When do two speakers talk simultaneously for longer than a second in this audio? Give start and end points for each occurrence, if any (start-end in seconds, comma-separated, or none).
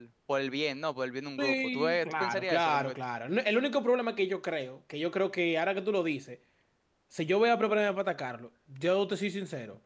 1.4-2.9